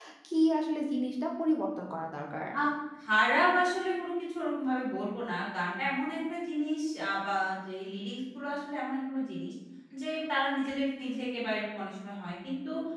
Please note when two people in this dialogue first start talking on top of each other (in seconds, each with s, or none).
none